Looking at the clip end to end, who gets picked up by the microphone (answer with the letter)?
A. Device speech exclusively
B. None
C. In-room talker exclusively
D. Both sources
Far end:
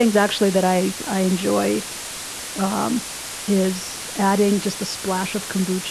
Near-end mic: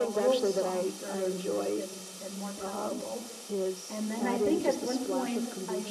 D